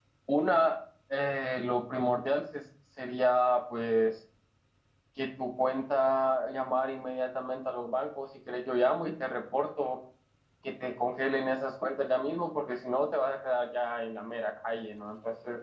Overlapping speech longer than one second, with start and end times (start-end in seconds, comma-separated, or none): none